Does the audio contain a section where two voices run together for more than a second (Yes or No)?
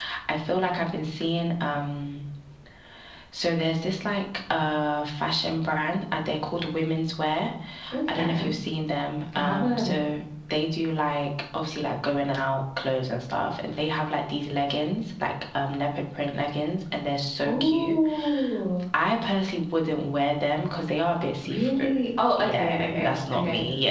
Yes